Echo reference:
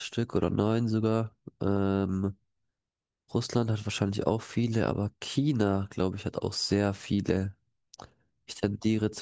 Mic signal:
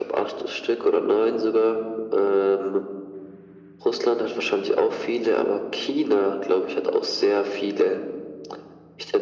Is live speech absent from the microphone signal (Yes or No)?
Yes